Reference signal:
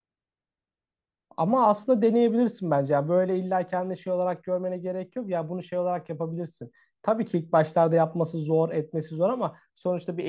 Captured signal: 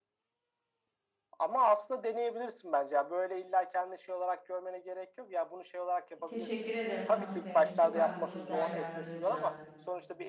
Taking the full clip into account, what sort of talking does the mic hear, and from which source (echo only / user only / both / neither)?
both